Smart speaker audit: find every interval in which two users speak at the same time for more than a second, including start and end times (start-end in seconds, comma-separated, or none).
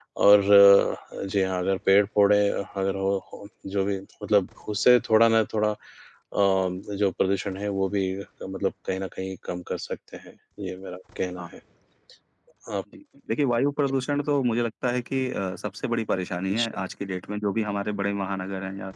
none